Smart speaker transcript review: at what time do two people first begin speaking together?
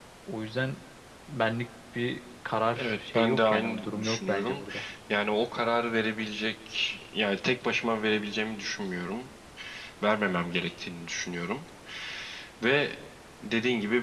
2.8 s

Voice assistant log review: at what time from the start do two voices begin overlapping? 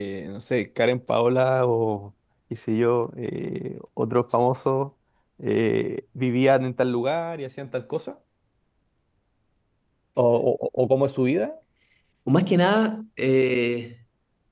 none

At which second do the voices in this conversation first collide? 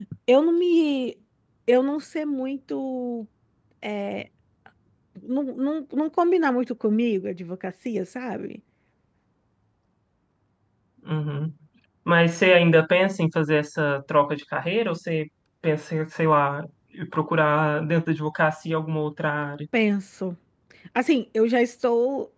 none

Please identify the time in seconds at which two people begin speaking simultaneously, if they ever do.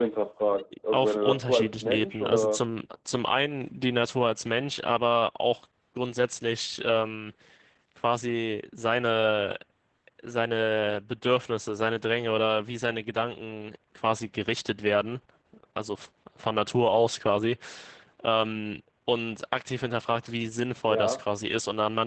0.9 s

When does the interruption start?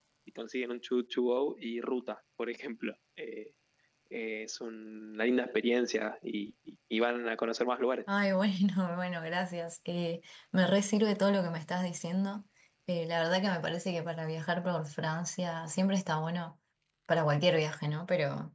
none

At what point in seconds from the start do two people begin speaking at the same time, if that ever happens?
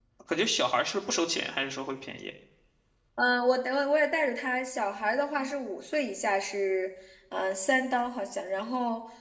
none

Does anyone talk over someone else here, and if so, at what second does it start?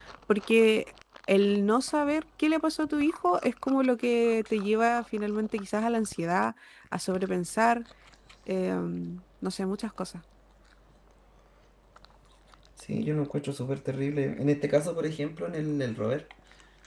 none

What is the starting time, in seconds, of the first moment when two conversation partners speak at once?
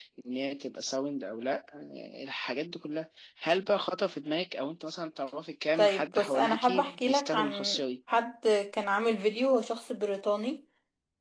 5.8 s

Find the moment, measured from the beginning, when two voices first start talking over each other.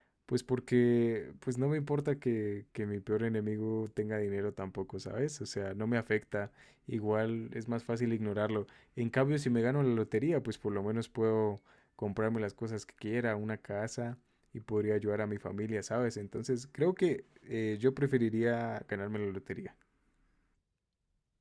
none

